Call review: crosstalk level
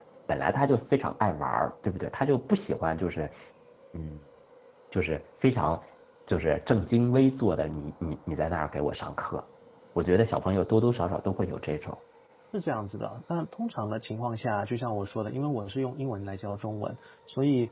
none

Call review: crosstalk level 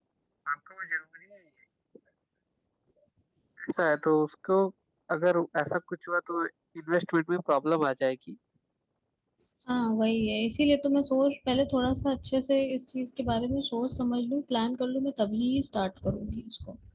none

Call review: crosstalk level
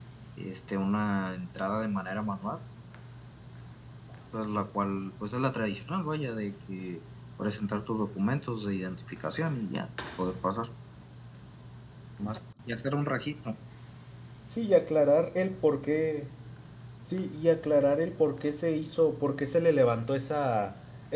none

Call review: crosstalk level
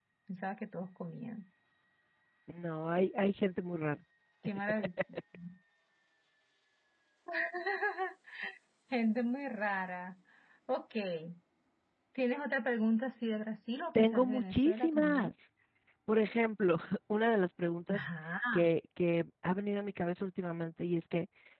present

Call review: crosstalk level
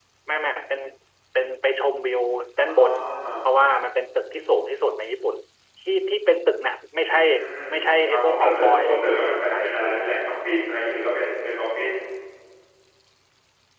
present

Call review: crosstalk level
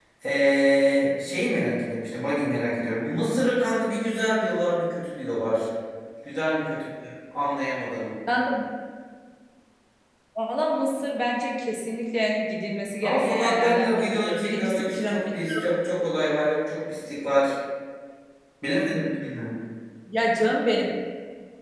present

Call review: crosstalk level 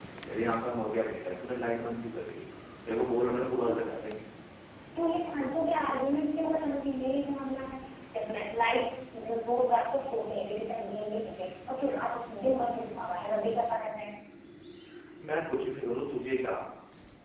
none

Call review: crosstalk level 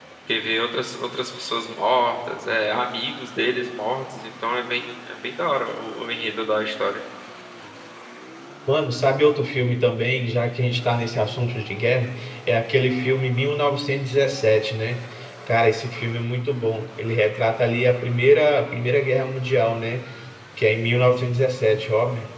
none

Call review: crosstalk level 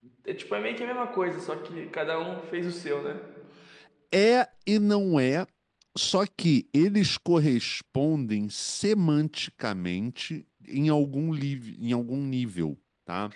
none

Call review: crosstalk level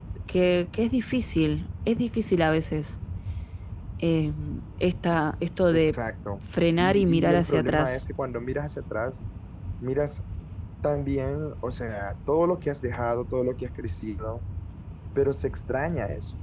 present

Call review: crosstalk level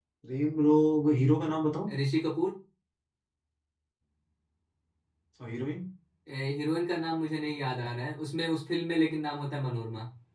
none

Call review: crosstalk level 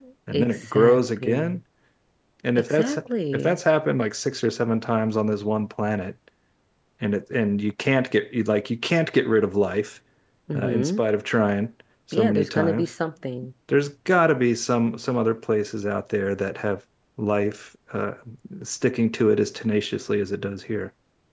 present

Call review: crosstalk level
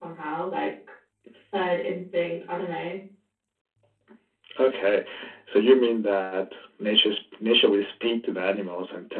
none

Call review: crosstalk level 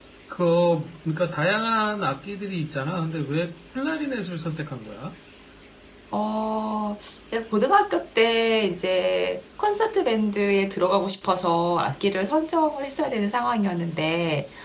none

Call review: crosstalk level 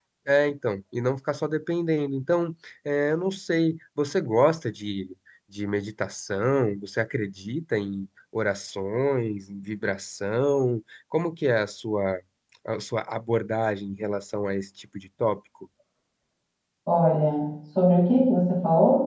none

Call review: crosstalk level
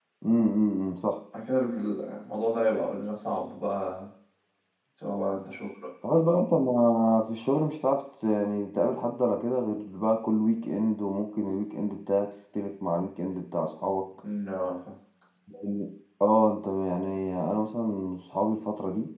none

